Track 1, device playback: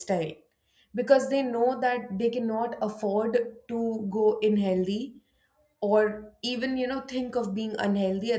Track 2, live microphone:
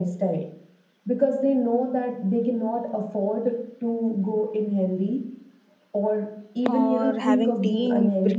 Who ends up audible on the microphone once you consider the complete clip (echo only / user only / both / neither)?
both